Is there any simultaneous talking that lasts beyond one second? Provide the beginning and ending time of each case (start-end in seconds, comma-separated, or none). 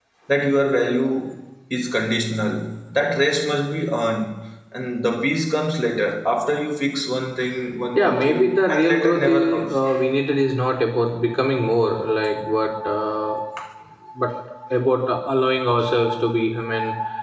7.9-9.8